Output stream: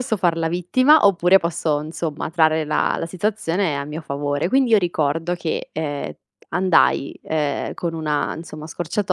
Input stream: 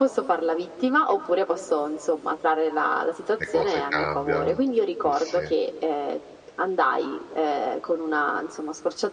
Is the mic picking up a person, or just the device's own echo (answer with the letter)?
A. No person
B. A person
B